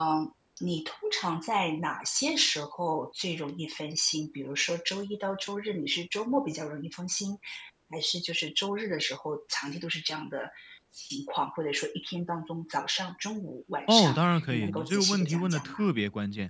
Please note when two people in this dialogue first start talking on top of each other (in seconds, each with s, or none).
13.9 s